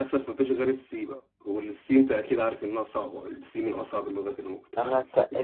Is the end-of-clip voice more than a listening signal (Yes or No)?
Yes